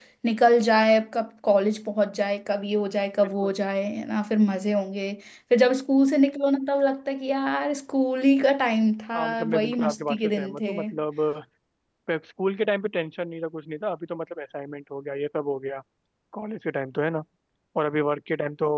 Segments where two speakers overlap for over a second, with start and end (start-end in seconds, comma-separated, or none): 9.1-10.7